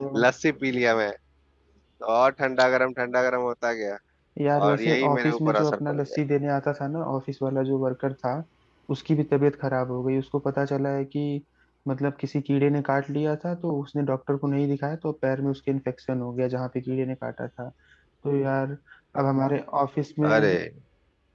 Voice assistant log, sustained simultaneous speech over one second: present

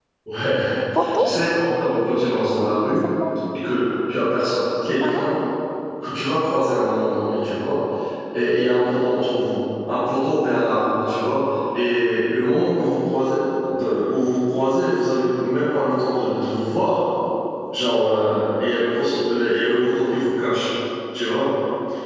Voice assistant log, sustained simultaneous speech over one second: none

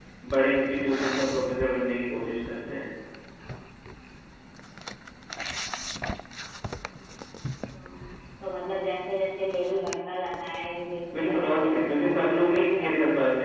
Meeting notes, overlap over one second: present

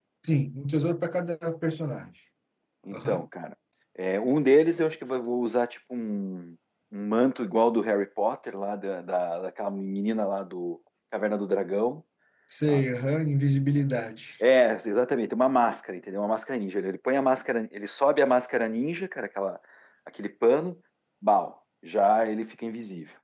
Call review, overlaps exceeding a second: none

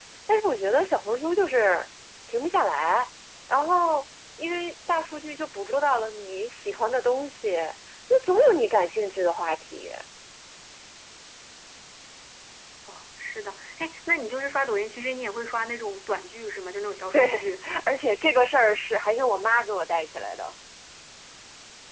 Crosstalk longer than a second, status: none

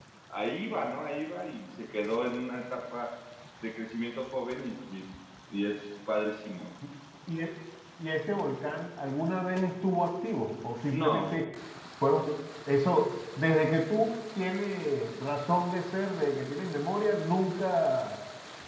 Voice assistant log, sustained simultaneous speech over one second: none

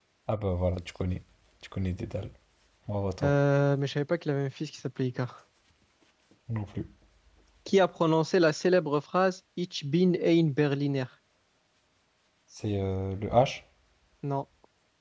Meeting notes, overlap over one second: none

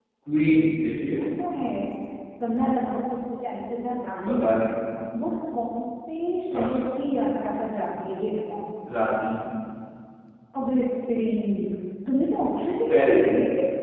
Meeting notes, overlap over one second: none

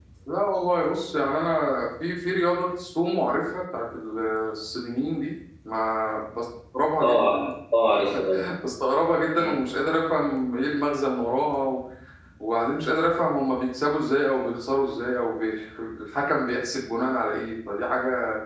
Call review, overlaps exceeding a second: none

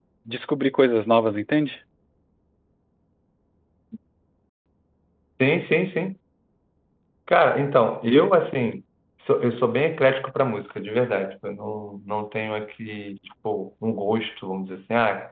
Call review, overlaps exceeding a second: none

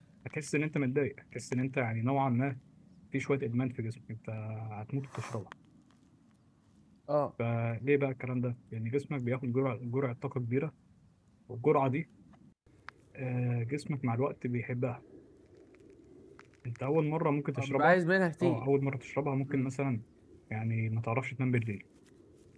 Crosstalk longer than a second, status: none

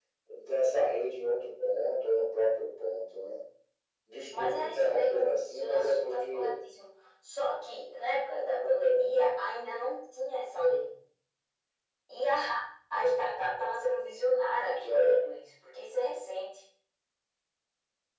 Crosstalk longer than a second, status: present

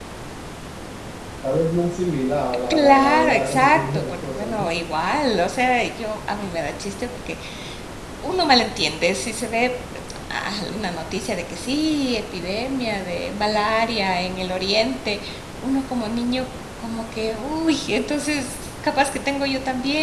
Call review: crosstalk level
present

